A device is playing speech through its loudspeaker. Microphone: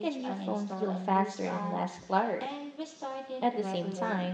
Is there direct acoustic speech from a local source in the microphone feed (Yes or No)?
Yes